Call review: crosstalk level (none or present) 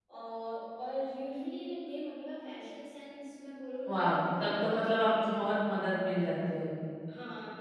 present